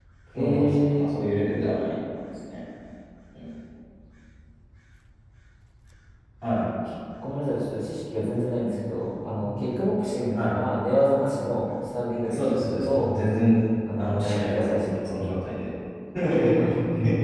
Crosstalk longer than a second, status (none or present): present